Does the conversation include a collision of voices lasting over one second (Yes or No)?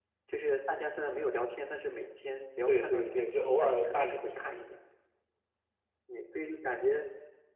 Yes